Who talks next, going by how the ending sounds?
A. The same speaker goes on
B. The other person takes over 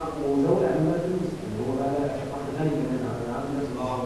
A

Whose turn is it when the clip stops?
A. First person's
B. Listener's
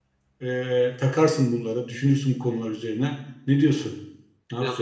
B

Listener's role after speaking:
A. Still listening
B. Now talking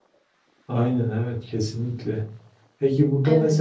A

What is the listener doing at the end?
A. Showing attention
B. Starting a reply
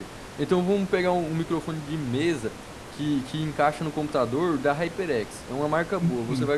A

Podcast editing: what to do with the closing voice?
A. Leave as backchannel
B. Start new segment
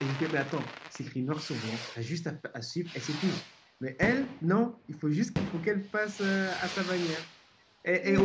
A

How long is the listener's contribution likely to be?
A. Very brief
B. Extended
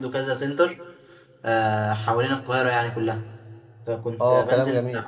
B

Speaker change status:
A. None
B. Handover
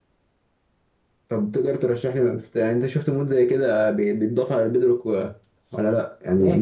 A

